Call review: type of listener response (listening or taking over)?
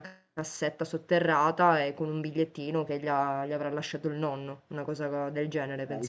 taking over